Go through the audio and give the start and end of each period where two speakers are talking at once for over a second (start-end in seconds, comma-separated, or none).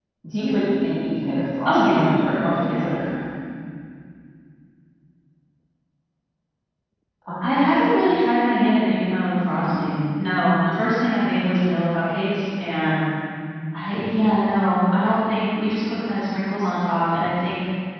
1.6-2.9